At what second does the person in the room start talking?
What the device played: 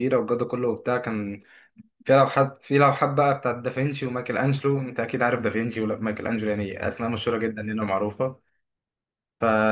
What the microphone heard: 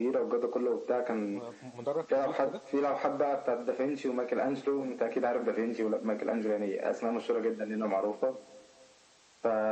1.3 s

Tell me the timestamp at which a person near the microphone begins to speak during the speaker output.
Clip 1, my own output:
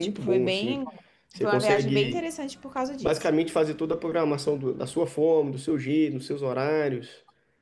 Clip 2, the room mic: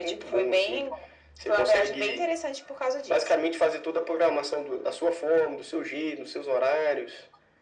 none

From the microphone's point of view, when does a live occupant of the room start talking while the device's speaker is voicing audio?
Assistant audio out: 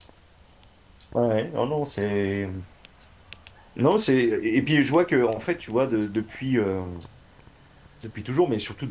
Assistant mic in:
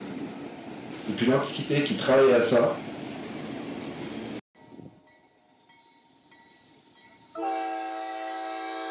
1.1 s

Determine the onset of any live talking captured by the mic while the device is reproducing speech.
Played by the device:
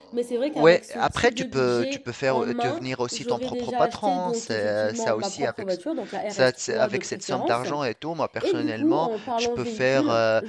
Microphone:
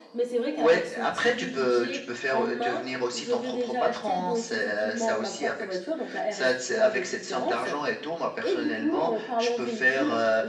none

